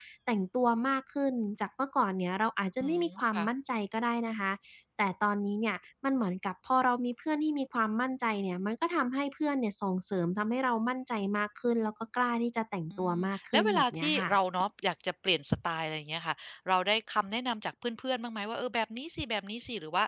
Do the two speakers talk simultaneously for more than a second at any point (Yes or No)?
Yes